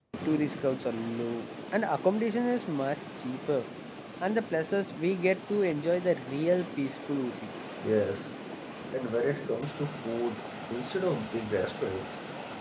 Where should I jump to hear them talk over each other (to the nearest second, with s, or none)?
none